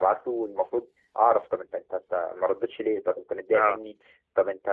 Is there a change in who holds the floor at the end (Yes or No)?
No